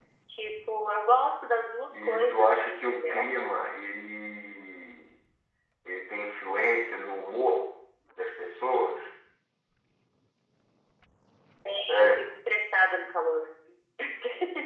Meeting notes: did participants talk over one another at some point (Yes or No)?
Yes